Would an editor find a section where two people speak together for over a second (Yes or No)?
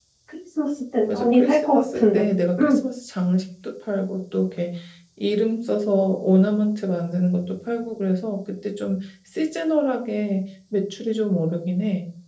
Yes